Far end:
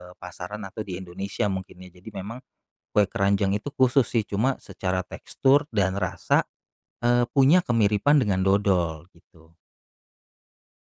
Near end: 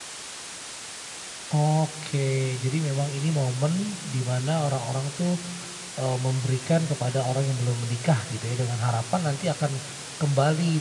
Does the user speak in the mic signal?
Yes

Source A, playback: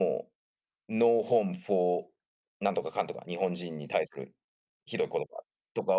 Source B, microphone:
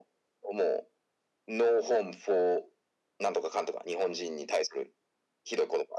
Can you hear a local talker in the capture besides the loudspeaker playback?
No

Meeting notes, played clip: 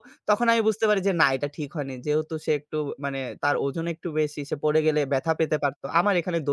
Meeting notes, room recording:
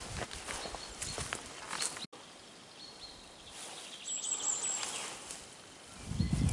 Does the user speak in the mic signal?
No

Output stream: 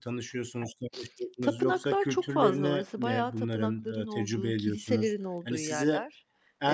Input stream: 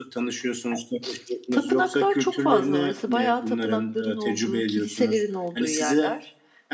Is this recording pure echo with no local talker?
Yes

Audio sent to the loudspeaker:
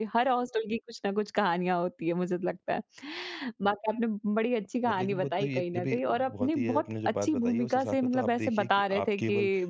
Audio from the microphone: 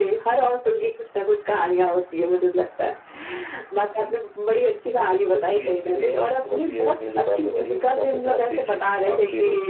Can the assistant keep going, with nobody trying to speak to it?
Yes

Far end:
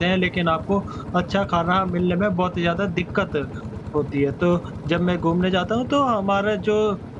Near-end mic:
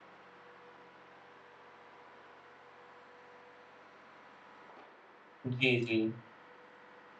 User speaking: Yes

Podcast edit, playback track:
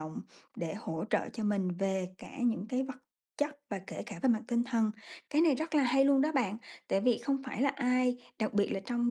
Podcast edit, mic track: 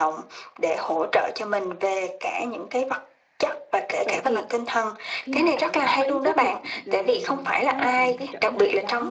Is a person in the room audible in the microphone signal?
Yes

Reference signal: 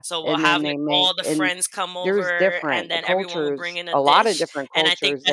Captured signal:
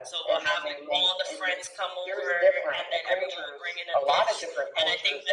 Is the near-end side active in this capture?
No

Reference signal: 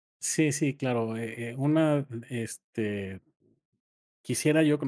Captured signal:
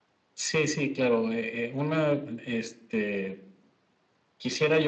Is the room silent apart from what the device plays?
Yes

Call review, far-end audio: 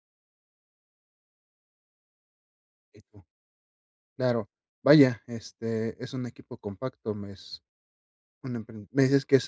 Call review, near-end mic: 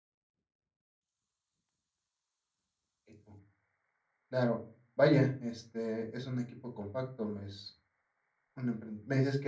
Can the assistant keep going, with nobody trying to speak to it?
Yes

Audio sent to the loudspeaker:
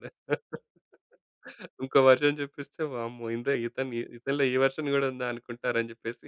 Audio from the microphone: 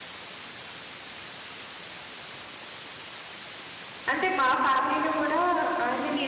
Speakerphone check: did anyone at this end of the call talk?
Yes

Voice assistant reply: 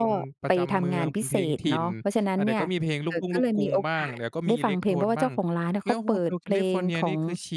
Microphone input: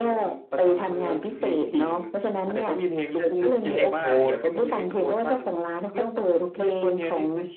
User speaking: Yes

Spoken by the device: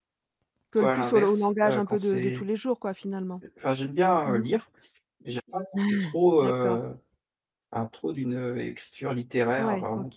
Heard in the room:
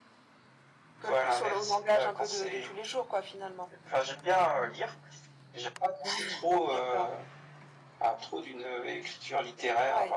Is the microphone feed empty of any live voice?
Yes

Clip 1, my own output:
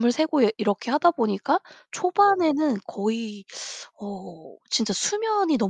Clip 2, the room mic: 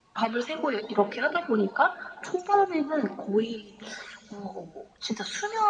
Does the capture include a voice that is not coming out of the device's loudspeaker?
No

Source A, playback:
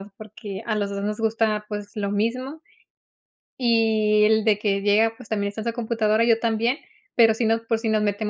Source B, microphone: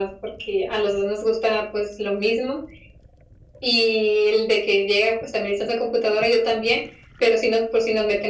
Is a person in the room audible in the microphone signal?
No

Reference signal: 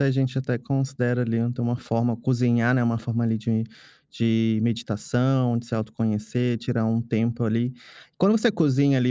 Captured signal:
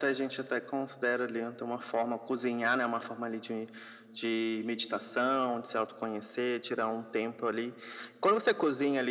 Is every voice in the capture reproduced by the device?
Yes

